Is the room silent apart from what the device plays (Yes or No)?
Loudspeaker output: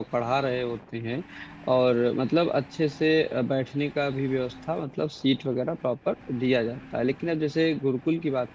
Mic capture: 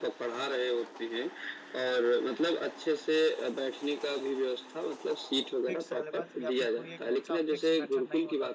No